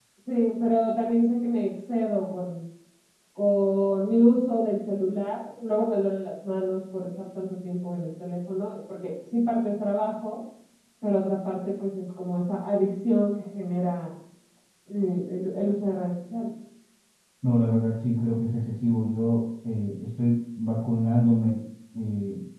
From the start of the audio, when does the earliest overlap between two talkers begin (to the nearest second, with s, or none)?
none